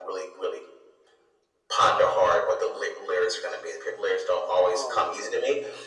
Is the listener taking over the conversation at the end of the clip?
No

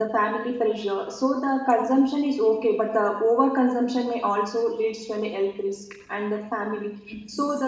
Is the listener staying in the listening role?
Yes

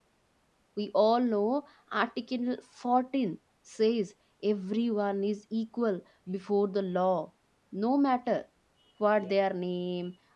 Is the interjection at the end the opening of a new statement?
No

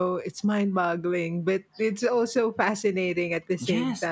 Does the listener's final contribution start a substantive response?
Yes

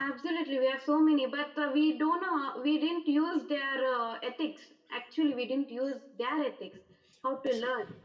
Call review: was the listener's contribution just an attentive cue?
Yes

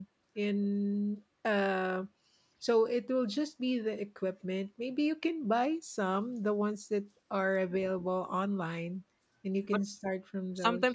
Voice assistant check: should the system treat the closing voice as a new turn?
Yes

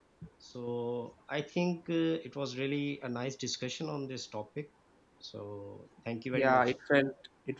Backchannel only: No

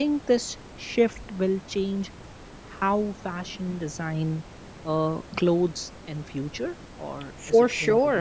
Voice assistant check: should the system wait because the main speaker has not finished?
No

